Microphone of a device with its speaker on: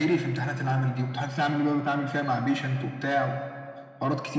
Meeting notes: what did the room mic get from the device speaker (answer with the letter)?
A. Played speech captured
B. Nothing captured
A